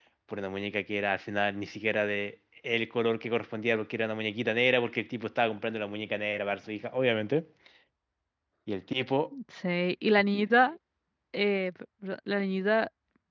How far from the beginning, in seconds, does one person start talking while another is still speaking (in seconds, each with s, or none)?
none